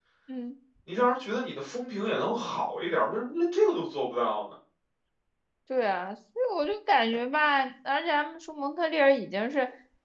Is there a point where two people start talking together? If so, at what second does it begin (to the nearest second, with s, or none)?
none